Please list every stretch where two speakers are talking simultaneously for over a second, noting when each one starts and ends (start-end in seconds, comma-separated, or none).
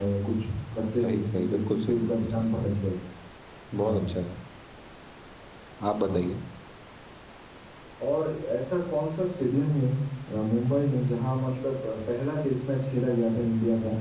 1.0-2.5